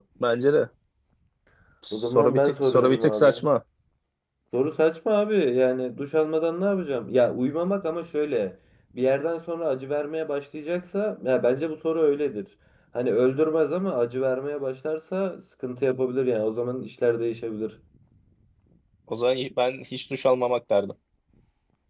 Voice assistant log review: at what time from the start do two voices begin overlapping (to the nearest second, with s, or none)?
2 s